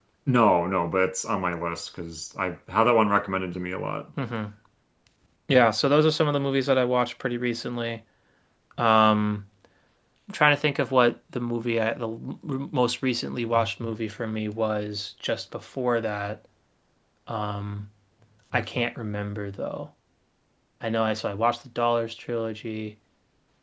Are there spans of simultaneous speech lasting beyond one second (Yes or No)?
No